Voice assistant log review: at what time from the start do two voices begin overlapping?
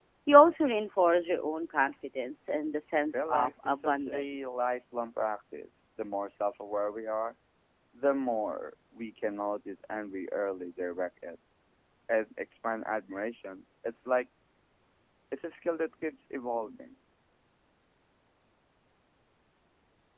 3 s

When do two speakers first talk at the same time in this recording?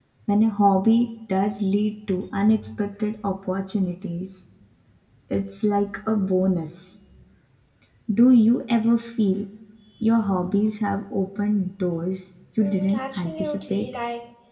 13 s

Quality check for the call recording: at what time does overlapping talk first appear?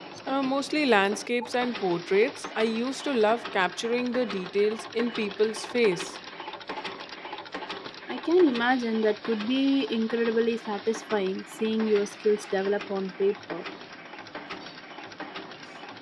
none

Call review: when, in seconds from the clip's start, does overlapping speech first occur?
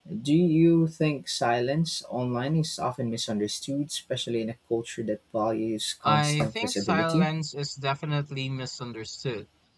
6 s

